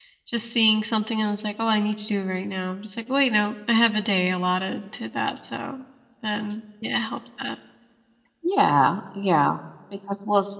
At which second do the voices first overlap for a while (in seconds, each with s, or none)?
none